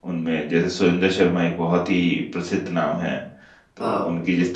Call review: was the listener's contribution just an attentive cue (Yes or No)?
Yes